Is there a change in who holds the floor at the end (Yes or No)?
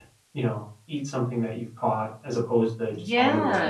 Yes